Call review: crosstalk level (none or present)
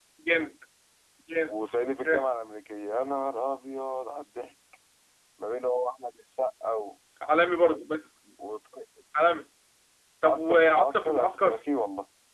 present